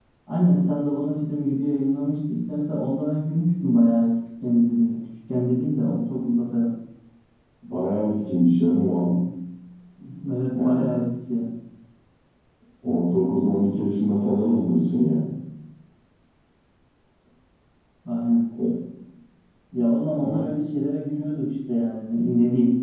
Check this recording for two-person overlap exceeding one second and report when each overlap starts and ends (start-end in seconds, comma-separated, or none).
none